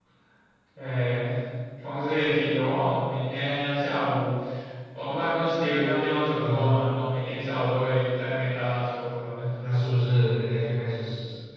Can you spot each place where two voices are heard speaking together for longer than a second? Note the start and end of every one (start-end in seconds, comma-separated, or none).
none